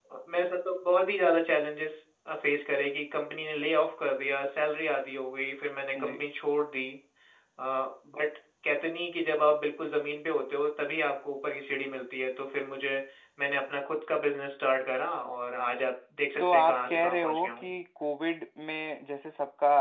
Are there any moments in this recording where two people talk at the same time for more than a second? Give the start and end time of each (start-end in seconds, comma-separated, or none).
16.4-17.8